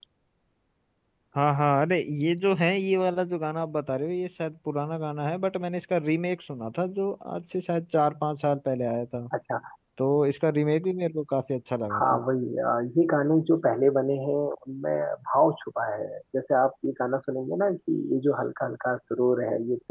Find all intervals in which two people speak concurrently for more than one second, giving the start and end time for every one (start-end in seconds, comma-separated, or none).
none